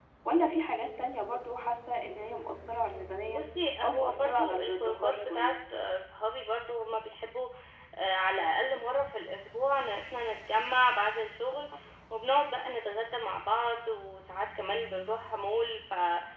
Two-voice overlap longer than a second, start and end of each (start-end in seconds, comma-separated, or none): 3.8-5.5